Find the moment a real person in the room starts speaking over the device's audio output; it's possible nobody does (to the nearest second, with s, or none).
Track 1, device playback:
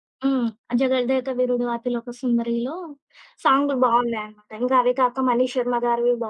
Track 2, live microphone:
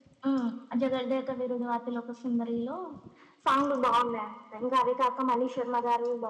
none